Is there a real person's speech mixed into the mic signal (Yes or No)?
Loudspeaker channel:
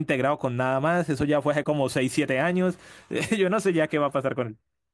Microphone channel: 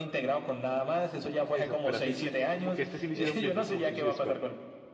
Yes